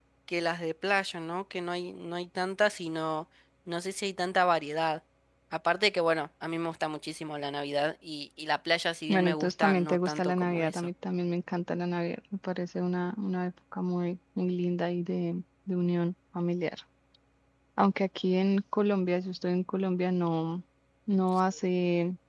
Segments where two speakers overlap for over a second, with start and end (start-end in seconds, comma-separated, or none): 9.1-10.9